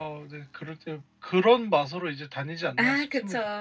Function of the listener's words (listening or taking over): taking over